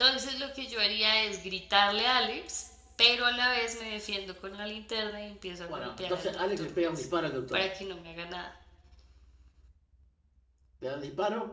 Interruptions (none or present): present